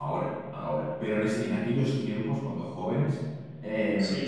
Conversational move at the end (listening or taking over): listening